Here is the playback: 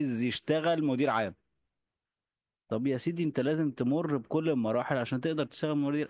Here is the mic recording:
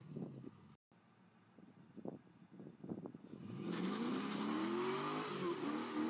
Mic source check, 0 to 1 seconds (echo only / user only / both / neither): neither